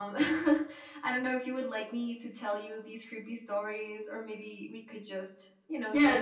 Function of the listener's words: taking over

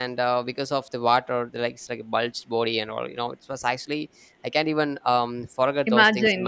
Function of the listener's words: listening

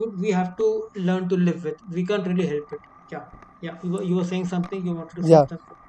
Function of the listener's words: taking over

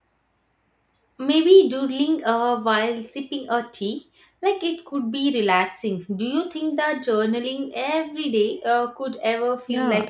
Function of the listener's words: taking over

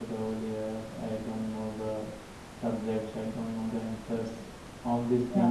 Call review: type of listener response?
listening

